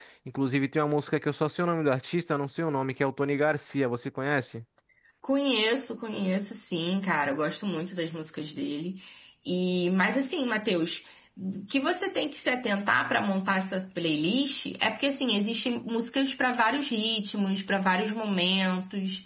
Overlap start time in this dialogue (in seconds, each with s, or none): none